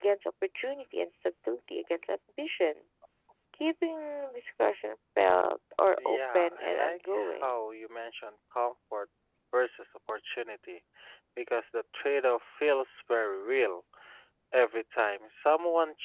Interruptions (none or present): present